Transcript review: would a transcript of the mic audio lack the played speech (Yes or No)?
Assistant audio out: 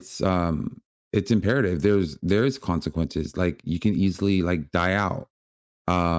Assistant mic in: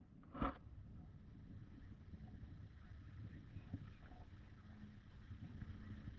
Yes